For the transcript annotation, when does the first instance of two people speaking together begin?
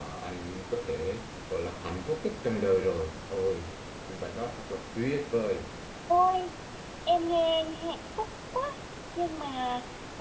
none

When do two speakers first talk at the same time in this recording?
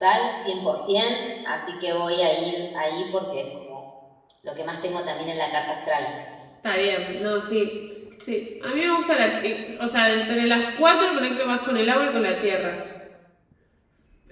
none

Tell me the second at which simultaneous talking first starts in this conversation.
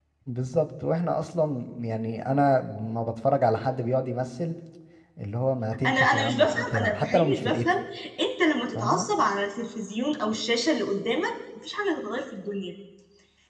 6 s

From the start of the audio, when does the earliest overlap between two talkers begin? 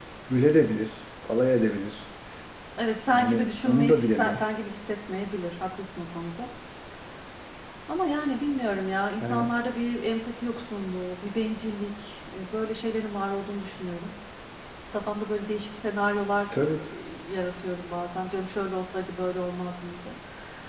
3 s

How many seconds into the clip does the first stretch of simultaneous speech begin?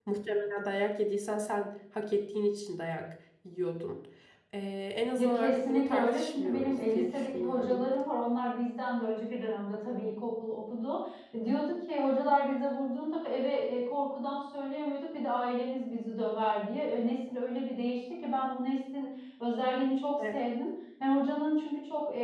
5 s

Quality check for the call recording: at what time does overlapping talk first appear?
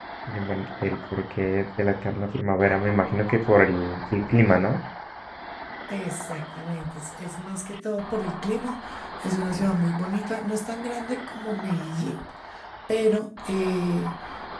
none

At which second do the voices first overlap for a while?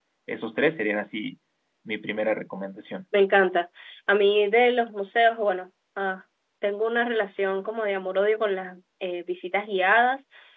none

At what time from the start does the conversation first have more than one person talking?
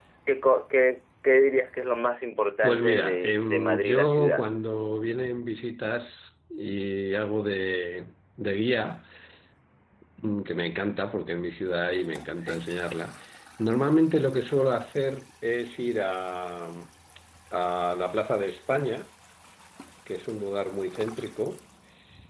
3 s

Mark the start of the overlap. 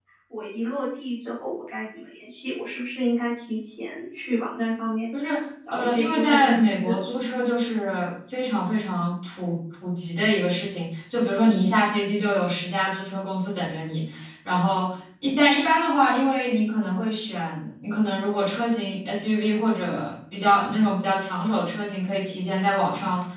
6 s

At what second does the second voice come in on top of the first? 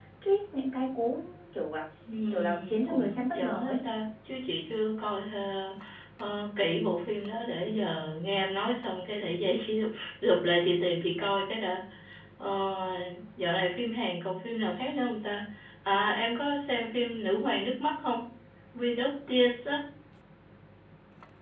2 s

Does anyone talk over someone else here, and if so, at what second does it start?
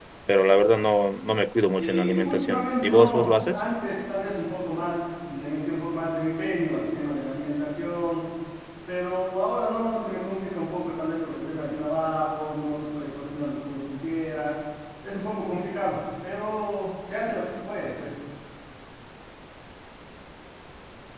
2 s

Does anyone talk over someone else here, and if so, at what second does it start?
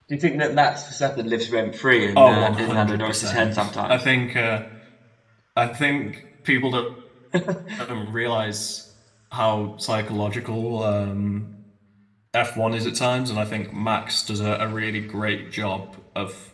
2 s

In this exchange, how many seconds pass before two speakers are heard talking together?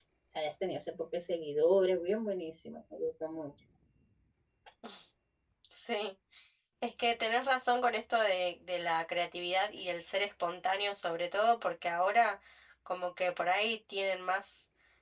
none

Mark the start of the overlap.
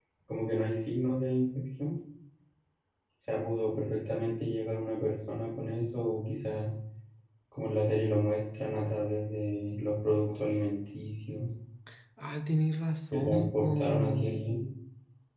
13 s

